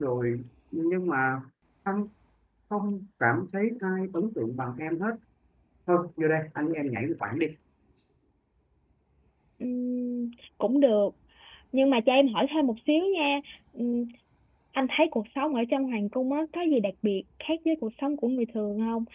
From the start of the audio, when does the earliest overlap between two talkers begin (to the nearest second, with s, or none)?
none